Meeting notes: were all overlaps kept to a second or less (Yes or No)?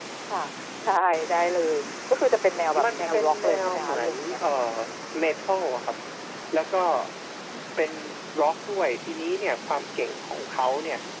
No